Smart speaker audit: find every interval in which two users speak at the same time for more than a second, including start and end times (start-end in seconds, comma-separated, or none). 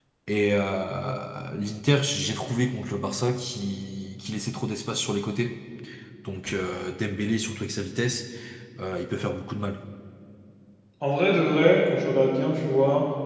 none